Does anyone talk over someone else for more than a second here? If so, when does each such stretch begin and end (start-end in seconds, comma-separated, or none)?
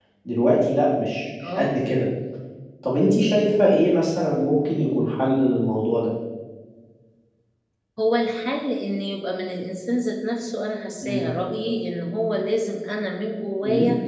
none